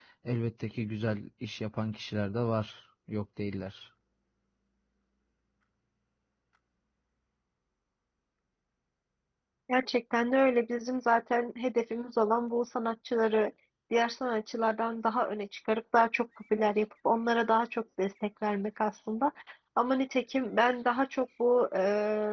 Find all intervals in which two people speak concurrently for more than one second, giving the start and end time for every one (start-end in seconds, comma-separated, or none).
none